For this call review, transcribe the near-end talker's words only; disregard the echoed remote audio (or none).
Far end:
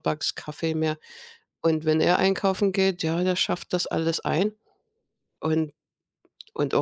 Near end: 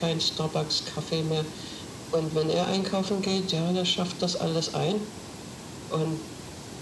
none